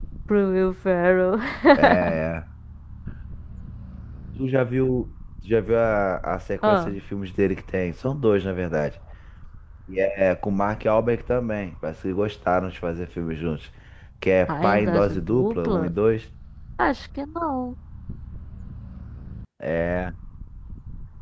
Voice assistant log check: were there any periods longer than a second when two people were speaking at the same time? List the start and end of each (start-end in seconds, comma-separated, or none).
14.5-15.9